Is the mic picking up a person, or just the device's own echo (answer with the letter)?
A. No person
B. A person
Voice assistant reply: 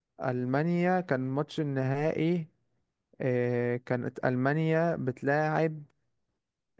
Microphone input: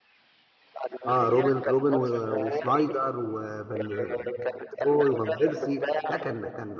B